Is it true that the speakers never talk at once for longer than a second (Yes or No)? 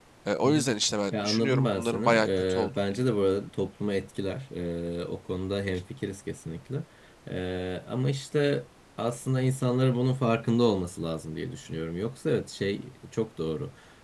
No